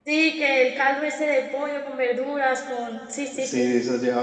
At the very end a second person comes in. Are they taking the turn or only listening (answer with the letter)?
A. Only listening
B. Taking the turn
B